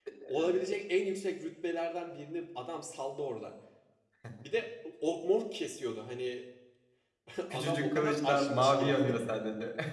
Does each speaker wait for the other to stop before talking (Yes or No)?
No